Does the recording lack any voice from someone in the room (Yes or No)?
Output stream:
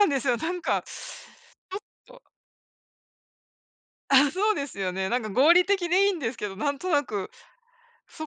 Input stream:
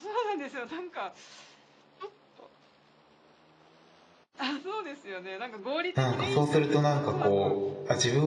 No